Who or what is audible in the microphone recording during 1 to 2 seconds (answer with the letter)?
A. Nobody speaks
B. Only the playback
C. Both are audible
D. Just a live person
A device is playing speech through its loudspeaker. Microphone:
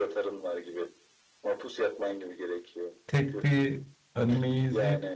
B